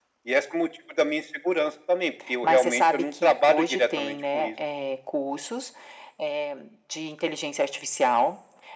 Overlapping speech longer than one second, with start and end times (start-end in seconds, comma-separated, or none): 2.4-4.5